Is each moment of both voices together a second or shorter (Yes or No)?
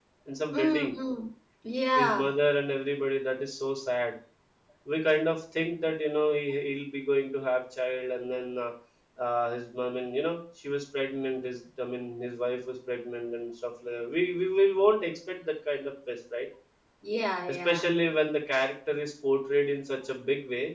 Yes